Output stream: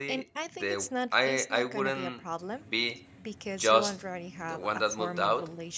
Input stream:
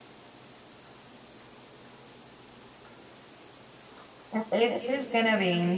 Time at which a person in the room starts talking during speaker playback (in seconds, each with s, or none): 4.3 s